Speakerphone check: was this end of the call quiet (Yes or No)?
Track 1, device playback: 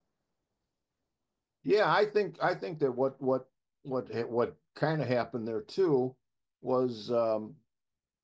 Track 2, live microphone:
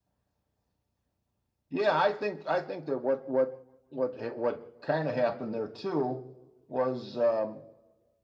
Yes